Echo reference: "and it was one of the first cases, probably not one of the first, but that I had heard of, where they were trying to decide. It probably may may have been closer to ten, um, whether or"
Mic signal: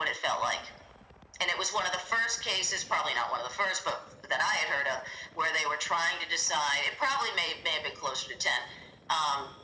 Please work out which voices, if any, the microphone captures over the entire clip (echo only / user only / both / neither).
echo only